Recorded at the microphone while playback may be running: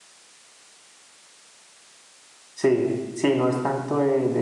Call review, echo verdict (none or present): none